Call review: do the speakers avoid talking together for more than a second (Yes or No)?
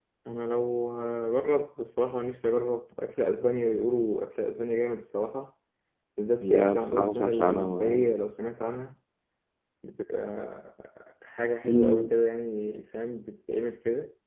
No